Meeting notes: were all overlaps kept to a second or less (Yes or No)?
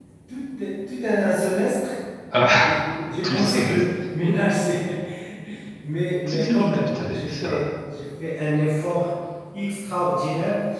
No